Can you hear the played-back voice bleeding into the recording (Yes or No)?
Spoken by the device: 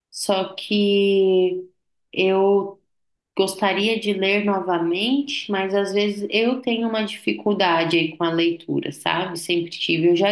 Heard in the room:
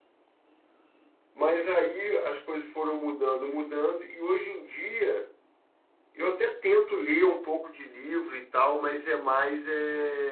No